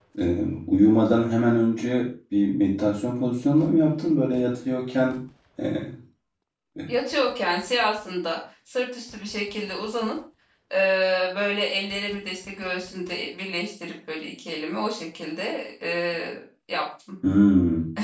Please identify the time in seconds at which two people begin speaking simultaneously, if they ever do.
none

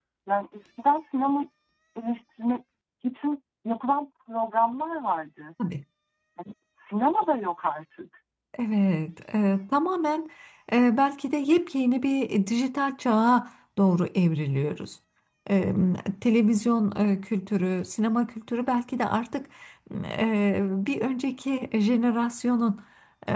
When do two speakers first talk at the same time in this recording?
none

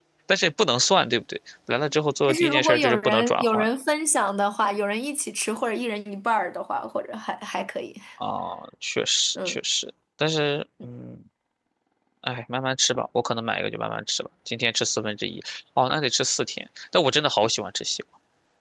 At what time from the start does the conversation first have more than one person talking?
2.2 s

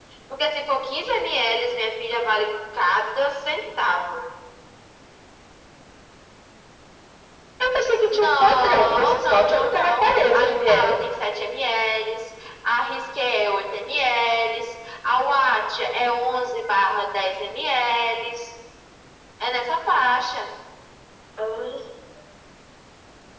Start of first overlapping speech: 8.1 s

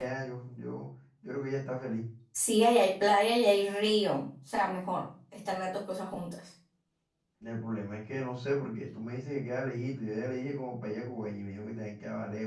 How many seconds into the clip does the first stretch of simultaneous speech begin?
none

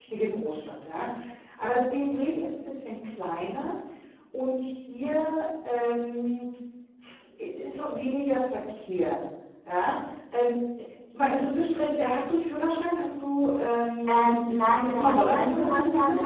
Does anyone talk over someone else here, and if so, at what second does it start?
14.1 s

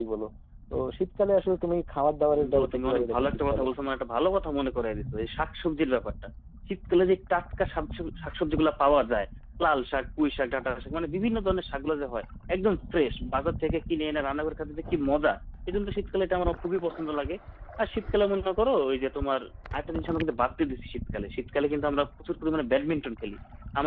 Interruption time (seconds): 2.3 s

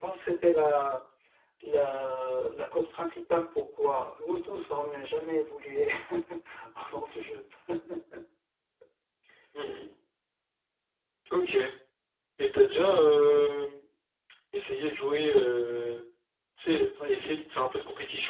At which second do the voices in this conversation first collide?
none

